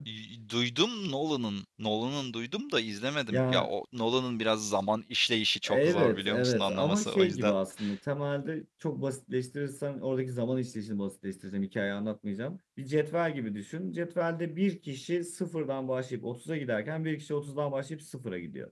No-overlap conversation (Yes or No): No